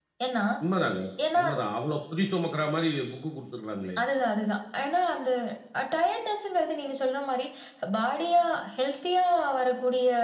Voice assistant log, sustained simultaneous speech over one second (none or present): none